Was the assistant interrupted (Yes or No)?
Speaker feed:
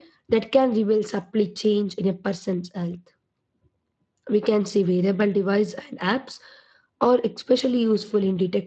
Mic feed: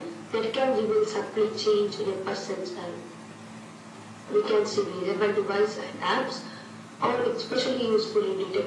No